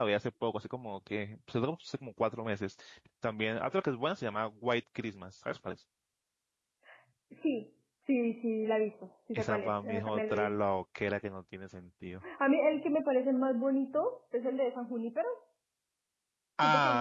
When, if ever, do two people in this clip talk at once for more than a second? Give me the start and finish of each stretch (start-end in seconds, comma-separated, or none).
9.3-10.6